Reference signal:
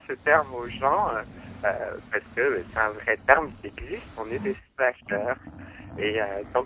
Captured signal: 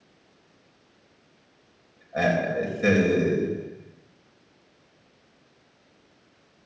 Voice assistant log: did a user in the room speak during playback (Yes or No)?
Yes